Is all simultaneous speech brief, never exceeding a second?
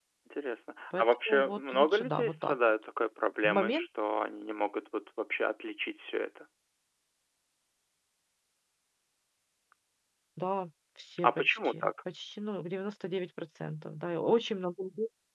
No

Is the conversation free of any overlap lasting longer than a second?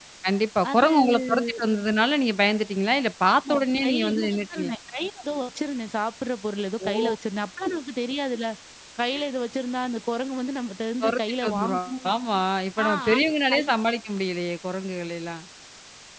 No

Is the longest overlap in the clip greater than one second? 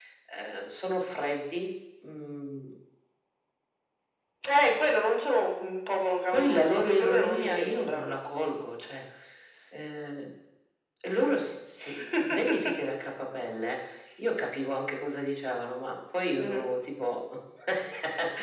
Yes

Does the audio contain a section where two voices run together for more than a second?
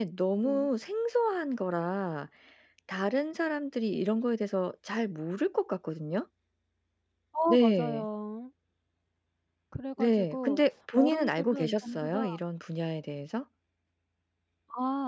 Yes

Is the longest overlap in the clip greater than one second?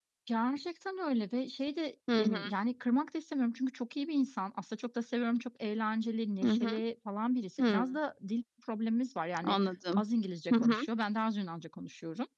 No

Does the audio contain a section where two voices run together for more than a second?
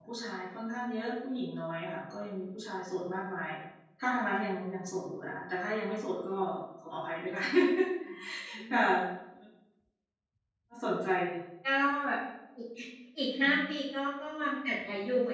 No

